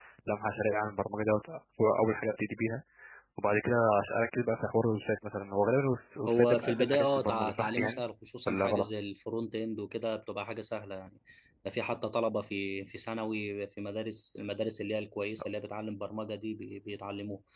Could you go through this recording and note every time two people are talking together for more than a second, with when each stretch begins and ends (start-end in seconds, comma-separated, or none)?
6.3-8.0